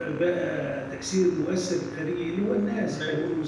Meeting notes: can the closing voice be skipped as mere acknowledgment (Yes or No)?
Yes